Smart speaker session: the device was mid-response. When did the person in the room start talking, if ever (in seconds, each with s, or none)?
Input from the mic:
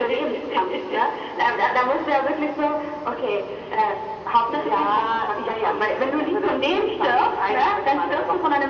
none